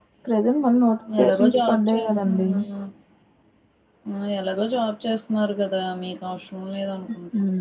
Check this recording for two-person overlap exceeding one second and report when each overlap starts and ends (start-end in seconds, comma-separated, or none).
1.2-2.5